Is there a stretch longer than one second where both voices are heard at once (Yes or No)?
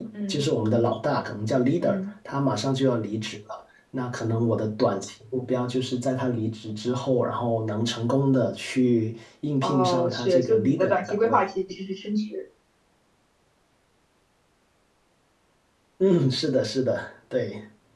Yes